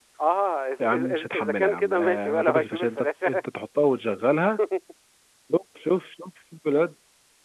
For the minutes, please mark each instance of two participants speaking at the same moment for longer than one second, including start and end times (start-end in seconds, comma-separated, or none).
0.8-3.4